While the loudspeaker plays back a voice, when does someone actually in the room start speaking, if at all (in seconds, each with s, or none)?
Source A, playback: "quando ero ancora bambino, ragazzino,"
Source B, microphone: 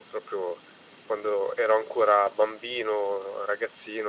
none